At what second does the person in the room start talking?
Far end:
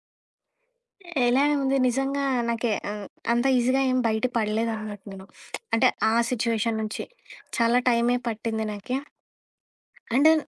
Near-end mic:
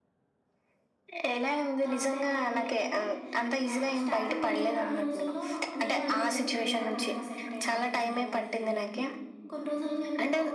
1.8 s

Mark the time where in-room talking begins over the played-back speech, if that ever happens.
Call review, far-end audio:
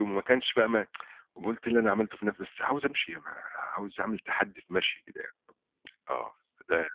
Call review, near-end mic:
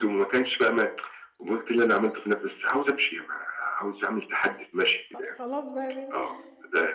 5.0 s

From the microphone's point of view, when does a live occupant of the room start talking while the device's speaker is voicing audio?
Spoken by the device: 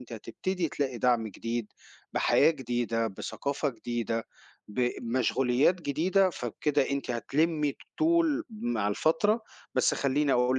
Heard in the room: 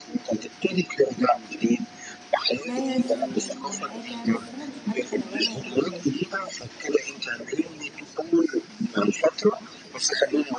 2.7 s

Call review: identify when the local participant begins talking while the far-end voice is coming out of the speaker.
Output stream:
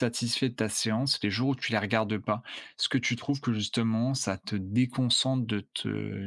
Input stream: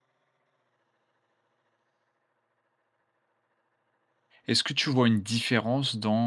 4.5 s

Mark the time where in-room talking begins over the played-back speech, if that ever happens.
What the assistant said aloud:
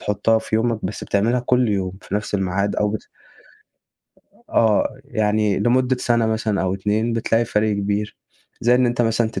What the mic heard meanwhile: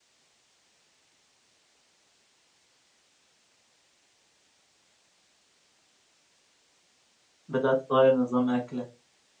7.5 s

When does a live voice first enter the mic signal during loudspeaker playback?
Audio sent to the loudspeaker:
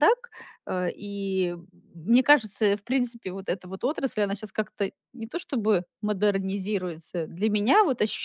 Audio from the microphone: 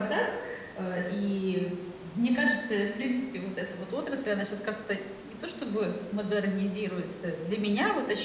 none

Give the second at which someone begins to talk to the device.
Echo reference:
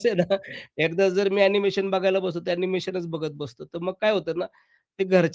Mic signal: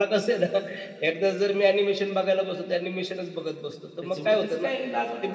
4.0 s

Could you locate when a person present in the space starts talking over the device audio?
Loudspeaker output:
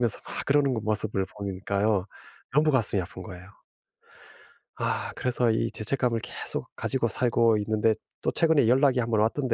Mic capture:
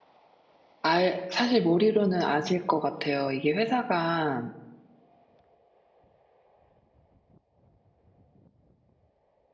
0.8 s

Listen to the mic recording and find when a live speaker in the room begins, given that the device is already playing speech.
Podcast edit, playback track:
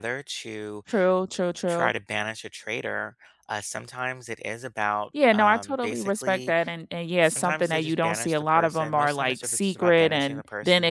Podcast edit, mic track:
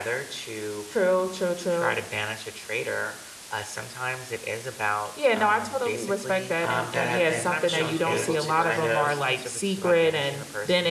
6.6 s

